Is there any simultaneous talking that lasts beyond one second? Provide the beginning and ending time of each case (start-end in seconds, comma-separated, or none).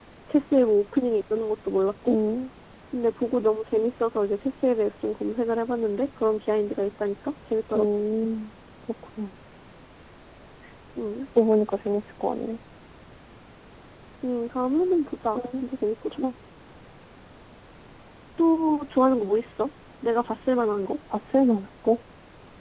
none